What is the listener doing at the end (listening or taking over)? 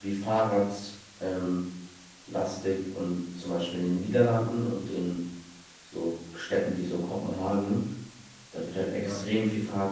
listening